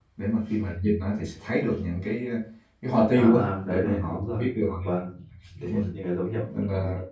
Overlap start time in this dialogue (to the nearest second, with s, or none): 3 s